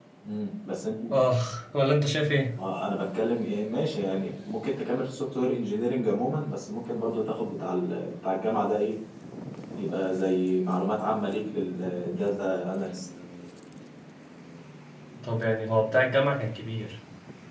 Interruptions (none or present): none